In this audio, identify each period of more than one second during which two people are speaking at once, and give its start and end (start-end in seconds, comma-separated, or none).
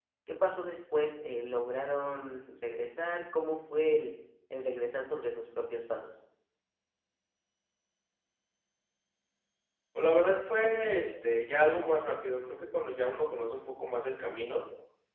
none